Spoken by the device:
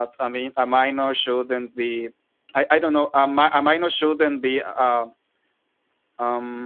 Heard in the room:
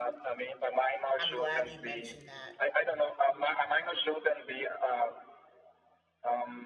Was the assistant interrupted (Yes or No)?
Yes